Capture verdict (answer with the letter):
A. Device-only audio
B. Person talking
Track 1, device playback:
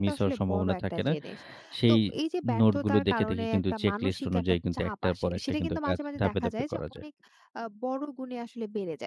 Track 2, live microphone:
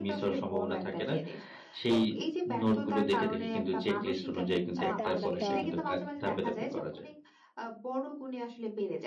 B